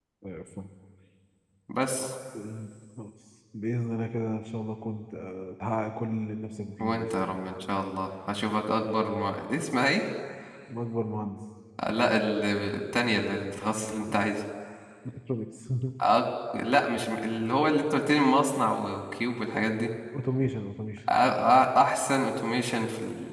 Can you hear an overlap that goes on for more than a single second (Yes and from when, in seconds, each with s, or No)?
No